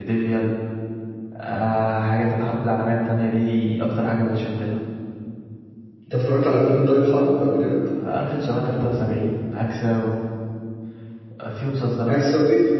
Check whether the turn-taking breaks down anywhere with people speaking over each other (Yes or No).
No